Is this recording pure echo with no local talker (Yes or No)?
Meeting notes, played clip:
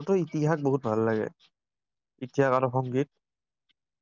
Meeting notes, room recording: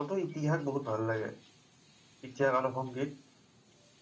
Yes